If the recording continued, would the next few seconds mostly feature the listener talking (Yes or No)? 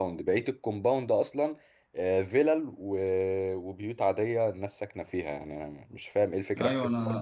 Yes